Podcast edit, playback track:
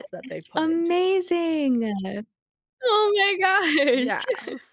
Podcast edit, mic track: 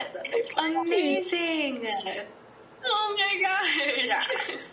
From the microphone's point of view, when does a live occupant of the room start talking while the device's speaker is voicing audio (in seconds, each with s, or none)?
0.3 s